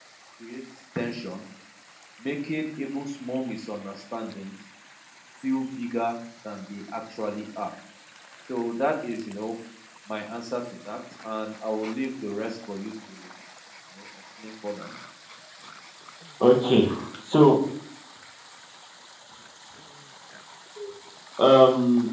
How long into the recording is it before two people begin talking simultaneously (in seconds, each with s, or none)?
none